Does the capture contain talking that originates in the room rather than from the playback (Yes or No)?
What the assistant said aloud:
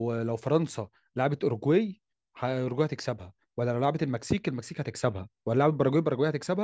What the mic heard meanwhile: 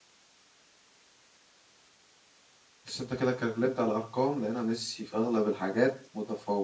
Yes